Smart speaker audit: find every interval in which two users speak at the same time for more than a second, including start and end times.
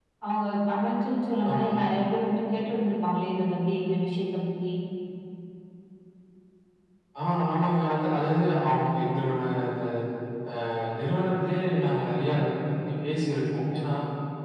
none

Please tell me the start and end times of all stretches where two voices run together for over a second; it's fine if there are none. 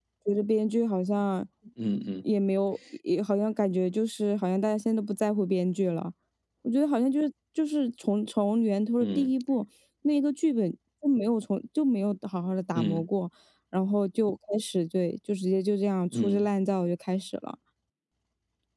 none

